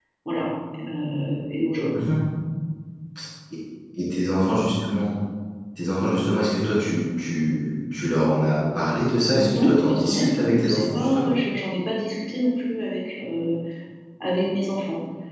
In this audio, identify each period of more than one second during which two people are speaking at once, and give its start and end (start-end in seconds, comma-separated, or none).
9.4-11.3